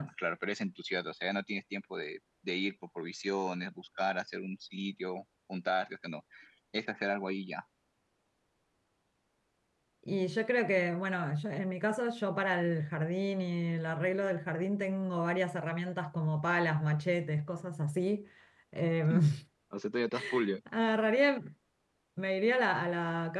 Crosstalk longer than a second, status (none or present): none